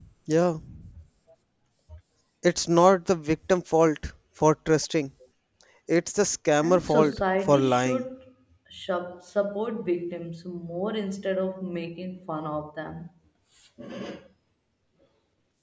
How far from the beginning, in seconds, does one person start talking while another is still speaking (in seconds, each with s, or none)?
6.6 s